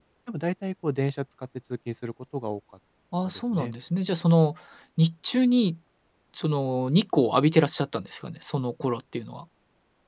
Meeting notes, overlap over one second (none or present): none